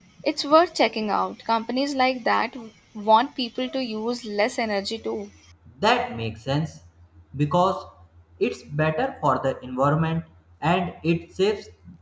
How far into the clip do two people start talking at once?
none

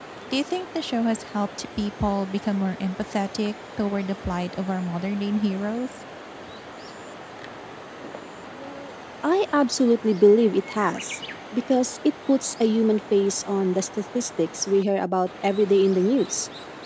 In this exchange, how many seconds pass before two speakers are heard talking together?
none

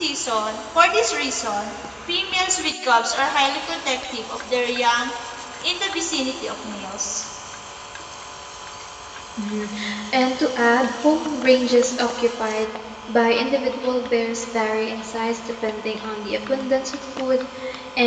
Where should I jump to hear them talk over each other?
none

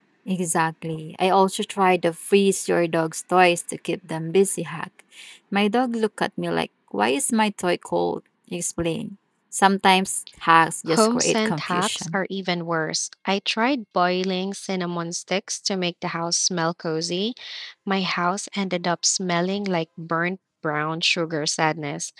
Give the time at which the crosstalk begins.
11 s

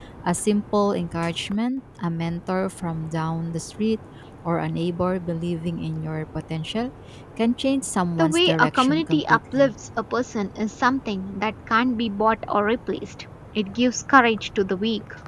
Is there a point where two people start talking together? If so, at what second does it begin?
8 s

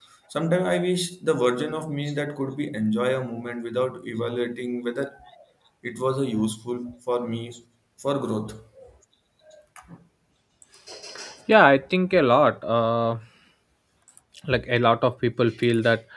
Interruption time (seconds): none

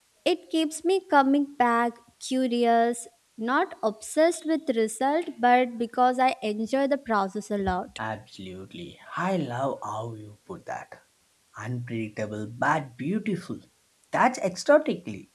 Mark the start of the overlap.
none

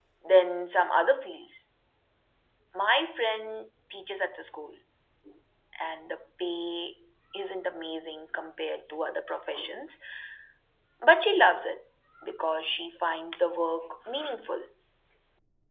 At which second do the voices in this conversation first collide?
none

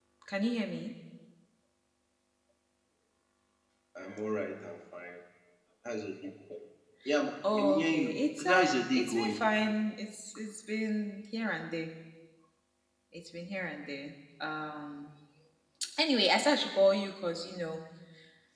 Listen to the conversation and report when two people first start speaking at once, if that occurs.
8 s

